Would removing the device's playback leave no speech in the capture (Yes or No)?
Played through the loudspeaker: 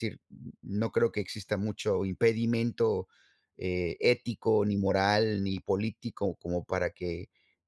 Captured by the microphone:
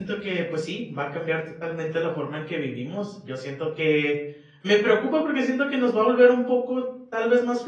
No